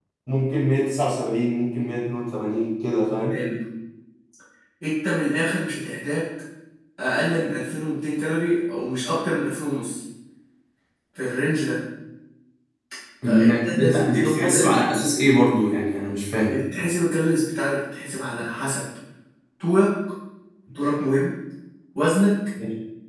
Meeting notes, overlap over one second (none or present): present